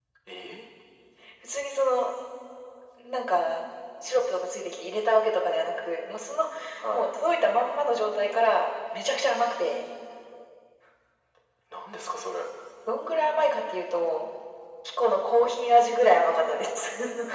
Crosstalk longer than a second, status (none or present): none